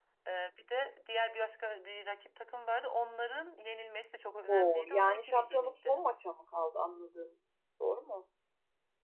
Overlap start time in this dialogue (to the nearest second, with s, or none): 4 s